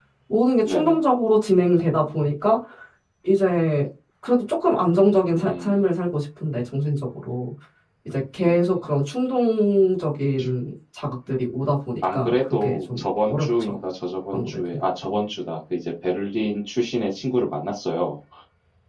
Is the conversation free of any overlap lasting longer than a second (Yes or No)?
No